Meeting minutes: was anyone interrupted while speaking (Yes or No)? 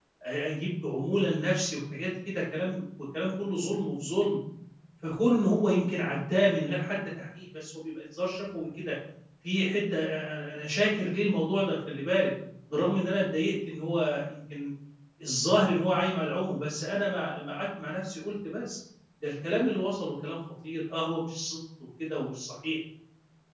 No